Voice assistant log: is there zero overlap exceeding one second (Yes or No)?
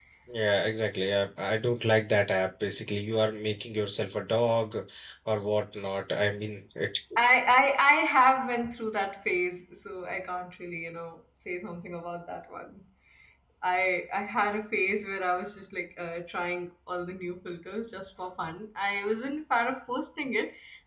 Yes